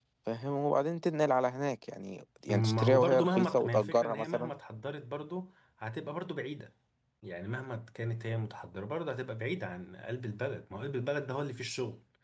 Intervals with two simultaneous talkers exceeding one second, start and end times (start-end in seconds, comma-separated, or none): 2.5-4.5